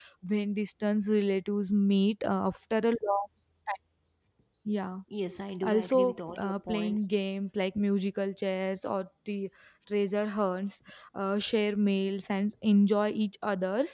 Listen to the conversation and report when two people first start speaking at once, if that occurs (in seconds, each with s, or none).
5.6 s